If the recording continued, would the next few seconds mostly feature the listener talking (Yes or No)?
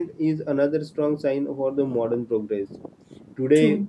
No